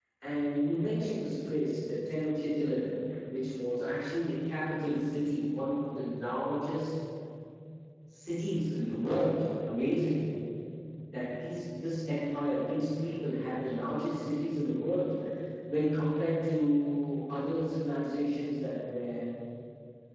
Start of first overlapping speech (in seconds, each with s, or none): none